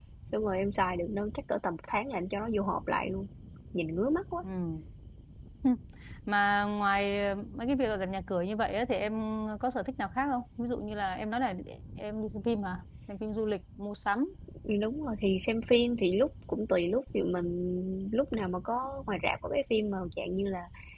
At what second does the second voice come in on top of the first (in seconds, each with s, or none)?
none